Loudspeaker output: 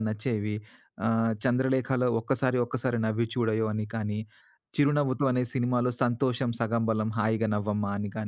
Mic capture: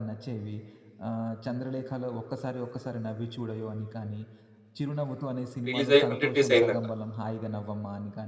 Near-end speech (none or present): present